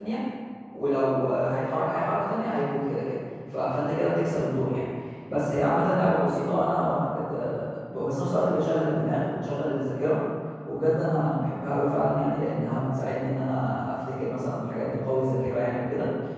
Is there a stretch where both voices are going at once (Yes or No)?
No